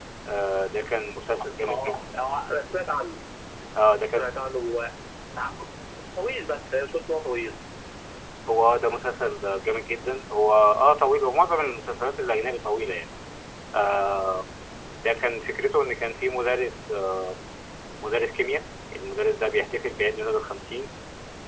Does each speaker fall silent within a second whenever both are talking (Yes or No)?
Yes